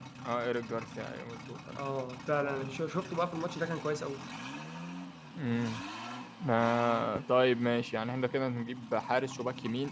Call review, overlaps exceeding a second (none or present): none